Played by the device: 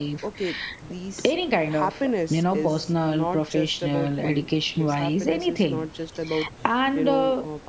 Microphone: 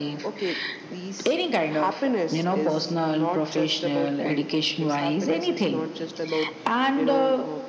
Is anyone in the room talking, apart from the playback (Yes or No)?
No